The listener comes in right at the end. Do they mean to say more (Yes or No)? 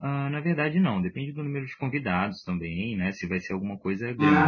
Yes